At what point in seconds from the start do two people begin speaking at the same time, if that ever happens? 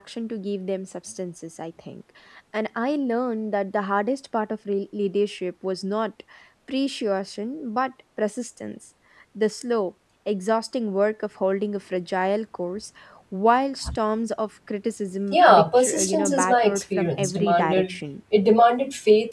15 s

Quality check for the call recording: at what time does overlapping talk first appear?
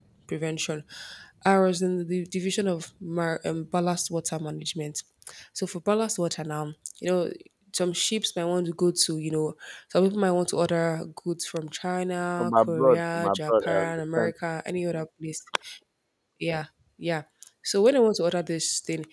12 s

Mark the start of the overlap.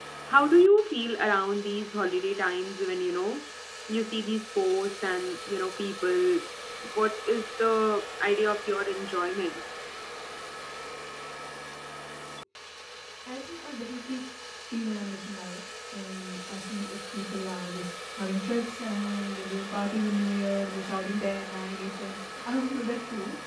none

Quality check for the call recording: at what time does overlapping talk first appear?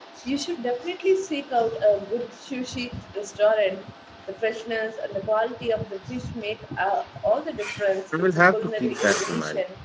8 s

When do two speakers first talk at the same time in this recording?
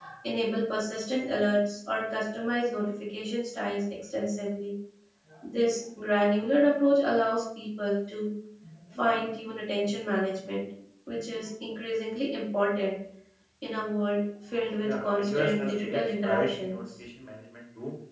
15 s

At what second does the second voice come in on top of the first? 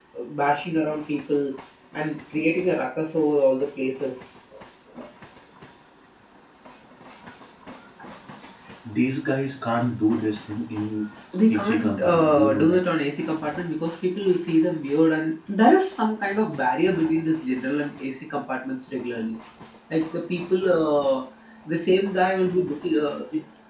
11 s

